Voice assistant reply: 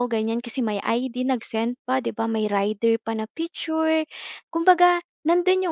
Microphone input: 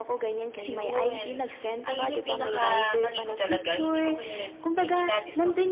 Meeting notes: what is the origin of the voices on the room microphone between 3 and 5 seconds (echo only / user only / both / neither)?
both